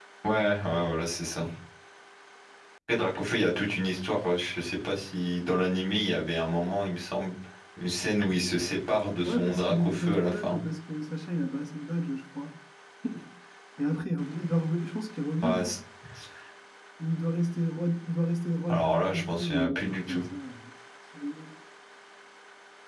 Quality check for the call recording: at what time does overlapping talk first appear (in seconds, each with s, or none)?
9.2 s